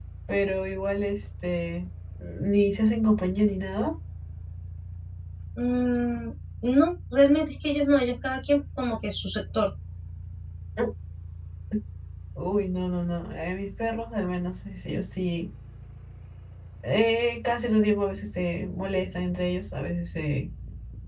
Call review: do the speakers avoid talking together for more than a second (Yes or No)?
Yes